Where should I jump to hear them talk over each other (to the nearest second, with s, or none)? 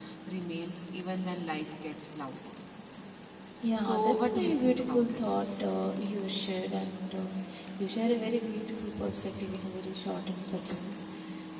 4 s